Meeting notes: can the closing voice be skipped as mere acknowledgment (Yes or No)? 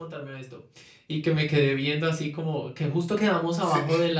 Yes